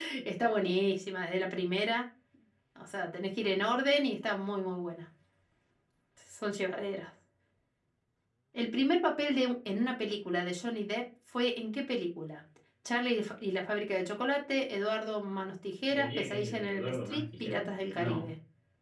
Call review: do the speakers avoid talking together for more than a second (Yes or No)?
No